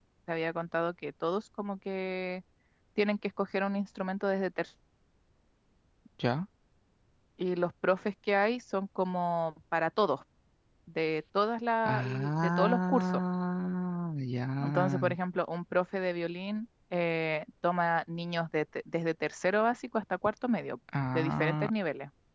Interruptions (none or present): present